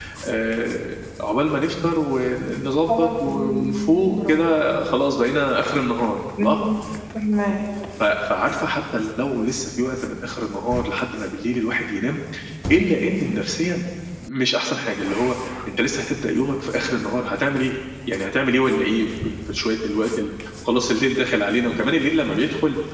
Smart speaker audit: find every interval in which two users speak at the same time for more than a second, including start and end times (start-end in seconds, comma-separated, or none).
2.9-4.5